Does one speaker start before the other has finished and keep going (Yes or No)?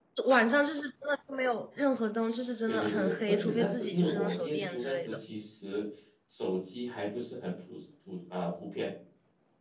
Yes